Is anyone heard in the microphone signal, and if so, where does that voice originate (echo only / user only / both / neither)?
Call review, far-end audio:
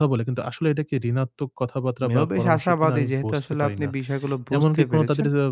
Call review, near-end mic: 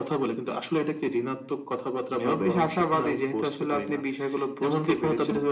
echo only